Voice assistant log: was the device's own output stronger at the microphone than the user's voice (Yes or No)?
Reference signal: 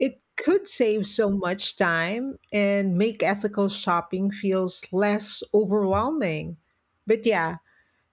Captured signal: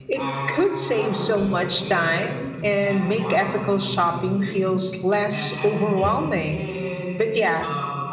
Yes